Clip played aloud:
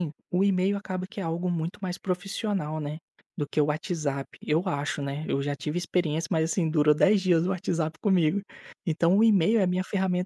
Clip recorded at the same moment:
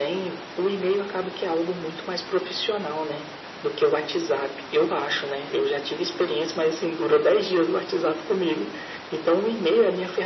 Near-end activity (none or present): none